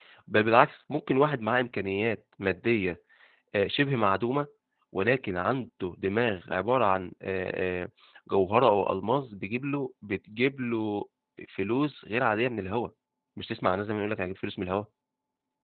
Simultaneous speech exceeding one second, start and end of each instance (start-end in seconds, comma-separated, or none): none